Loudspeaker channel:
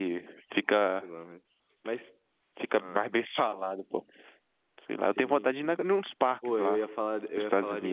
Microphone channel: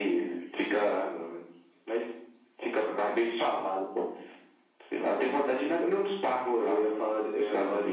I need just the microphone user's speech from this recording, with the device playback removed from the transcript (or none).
none